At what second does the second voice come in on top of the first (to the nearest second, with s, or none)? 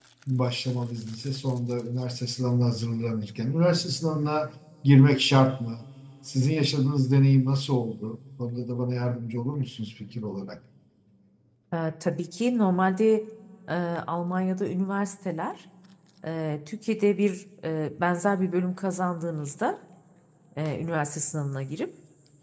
none